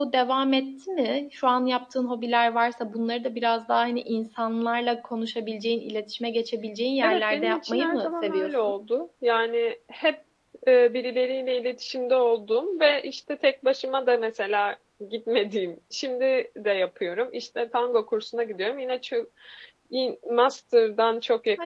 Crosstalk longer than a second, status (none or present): present